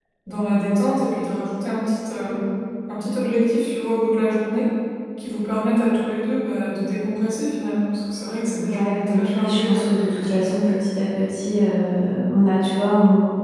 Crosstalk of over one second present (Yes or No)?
Yes